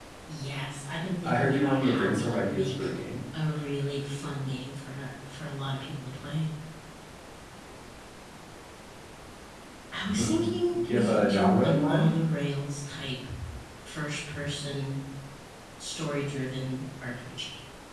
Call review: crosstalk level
present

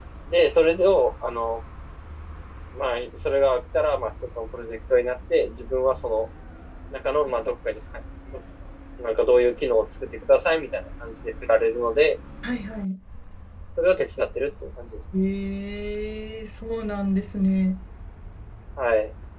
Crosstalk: none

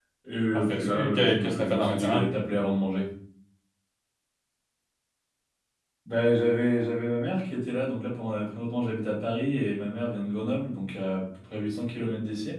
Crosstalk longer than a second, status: present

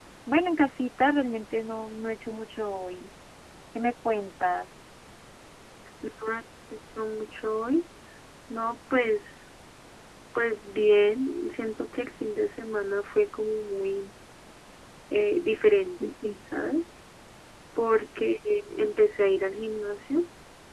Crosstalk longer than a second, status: none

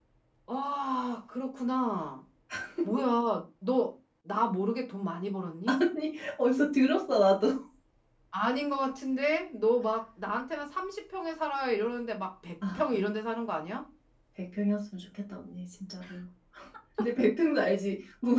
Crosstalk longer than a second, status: none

